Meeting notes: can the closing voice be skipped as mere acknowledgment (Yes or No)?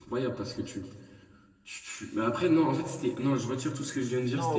No